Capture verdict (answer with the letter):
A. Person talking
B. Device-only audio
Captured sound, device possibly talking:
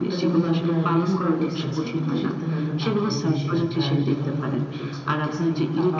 A